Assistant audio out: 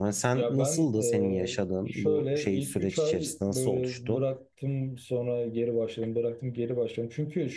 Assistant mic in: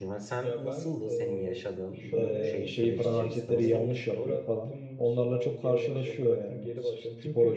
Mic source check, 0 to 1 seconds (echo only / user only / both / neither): echo only